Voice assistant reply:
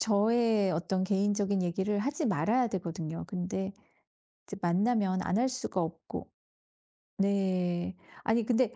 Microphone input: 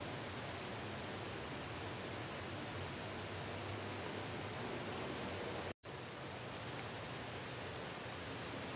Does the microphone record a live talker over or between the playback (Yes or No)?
No